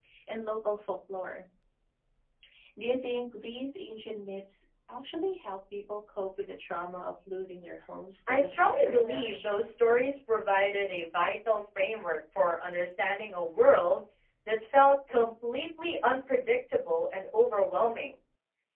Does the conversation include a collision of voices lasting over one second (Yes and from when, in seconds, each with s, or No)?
Yes, from 8.3 s